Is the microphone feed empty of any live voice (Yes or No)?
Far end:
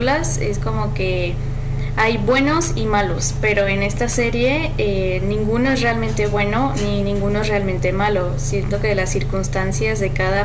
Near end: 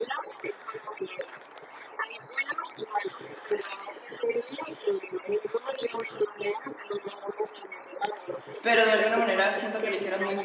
No